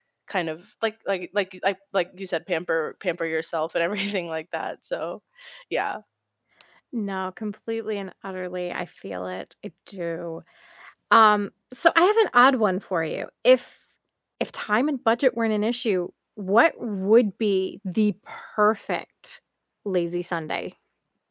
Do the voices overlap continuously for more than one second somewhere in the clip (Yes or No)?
No